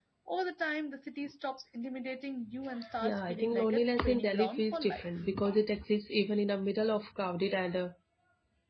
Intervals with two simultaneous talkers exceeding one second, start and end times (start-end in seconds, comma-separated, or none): 3.0-5.1